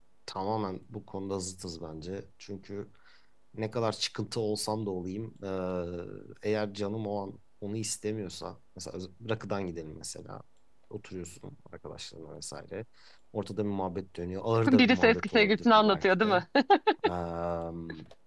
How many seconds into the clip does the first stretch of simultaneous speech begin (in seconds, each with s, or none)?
14.7 s